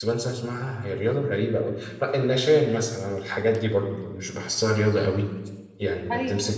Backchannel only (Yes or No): Yes